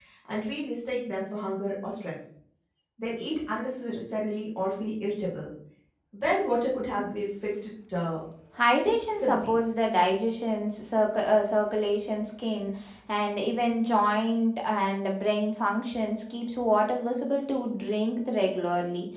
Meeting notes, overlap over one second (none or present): none